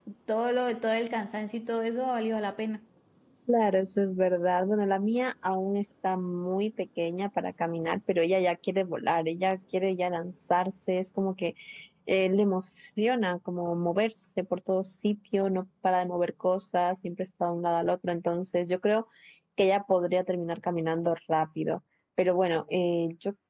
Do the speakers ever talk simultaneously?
No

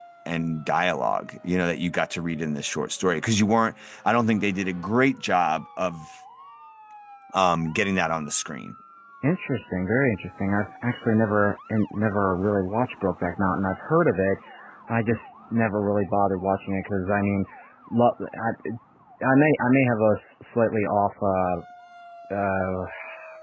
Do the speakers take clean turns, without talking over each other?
Yes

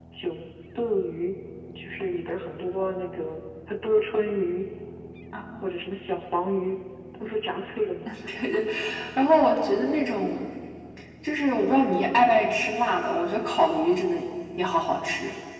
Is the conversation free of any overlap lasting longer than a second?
Yes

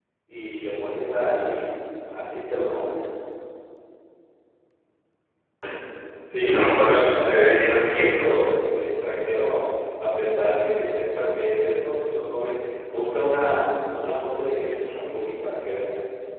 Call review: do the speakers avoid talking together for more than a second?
No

